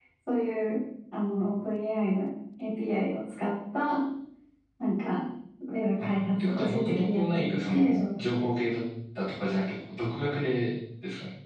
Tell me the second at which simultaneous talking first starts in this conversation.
6.0 s

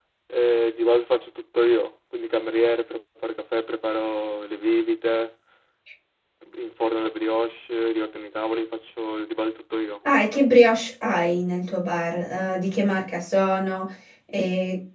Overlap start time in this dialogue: none

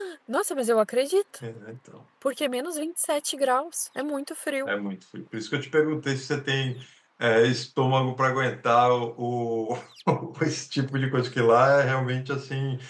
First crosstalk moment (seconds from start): none

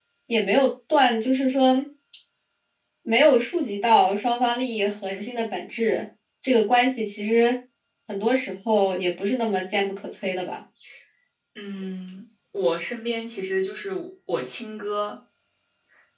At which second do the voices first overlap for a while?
none

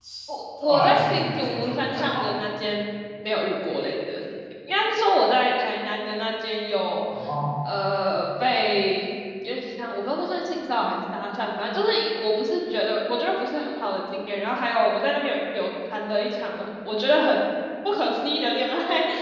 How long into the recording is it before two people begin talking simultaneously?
0.6 s

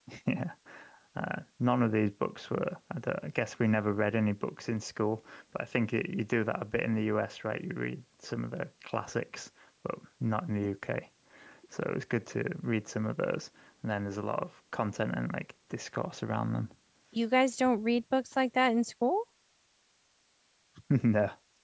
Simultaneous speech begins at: none

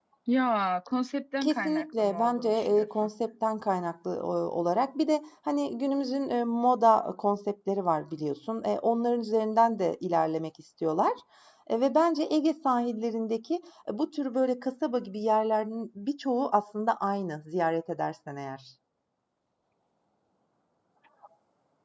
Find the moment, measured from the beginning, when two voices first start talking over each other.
1.4 s

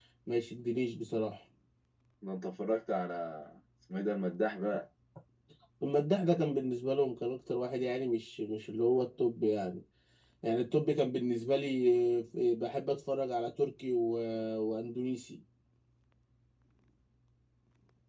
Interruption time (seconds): none

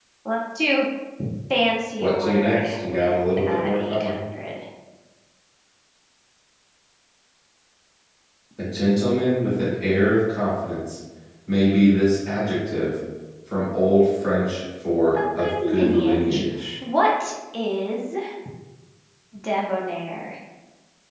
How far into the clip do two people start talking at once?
2.0 s

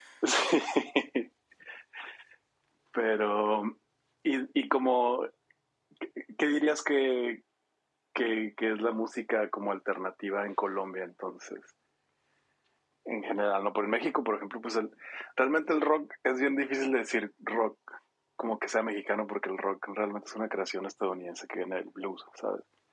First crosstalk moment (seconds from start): none

